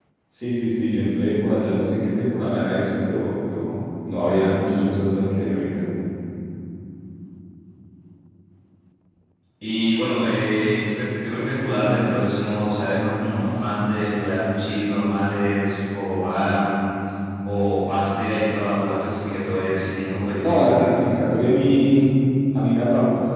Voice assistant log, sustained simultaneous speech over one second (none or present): none